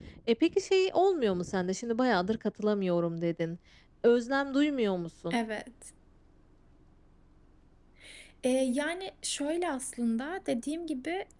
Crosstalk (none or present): none